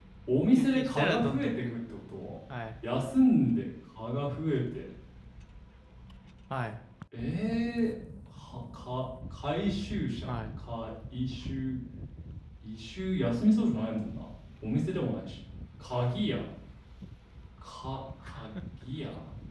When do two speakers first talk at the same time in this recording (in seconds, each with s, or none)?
0.5 s